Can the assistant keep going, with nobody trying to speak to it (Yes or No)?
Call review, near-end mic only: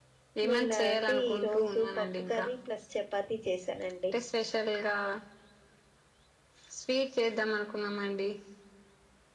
No